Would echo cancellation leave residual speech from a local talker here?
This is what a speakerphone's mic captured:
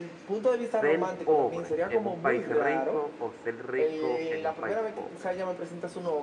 Yes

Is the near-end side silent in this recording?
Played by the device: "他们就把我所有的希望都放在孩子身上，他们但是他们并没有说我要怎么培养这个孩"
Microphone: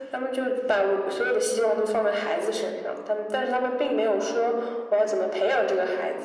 Yes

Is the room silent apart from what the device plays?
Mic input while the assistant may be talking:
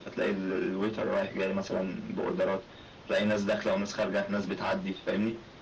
Yes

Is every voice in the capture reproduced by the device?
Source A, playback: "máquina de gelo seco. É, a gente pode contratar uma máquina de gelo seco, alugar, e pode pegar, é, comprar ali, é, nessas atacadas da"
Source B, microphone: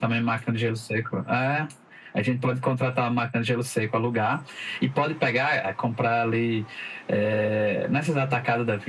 Yes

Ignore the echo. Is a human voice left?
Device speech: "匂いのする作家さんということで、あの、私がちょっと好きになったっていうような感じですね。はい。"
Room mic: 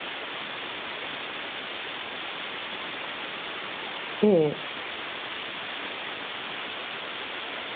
Yes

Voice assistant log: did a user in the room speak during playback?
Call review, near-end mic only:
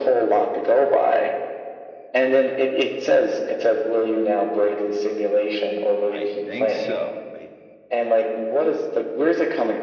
Yes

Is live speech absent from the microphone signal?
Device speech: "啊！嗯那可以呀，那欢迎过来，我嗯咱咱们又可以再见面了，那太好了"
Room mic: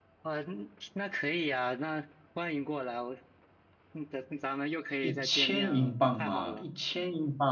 No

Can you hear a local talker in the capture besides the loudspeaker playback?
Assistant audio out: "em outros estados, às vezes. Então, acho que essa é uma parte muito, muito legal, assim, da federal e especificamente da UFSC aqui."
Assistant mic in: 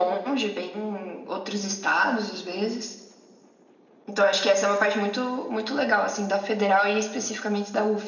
No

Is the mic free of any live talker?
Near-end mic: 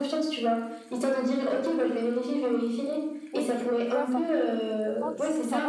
No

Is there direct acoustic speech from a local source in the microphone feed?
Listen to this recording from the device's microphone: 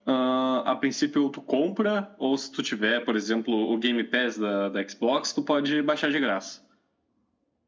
No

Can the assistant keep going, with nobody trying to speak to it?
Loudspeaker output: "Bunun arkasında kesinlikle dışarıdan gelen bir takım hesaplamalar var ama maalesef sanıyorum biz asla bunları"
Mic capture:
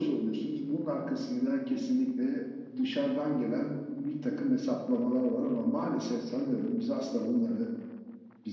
Yes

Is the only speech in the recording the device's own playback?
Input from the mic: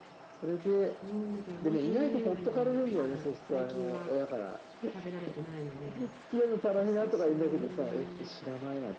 No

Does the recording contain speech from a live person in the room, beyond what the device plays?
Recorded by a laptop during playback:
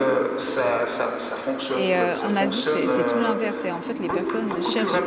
Yes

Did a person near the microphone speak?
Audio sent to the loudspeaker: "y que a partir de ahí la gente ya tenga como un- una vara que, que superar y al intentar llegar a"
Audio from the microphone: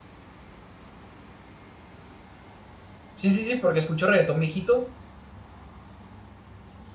Yes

